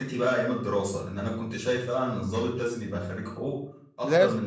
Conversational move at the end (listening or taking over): listening